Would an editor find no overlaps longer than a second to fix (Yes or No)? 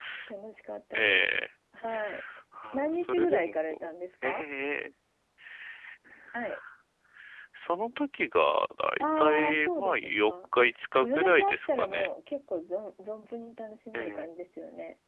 No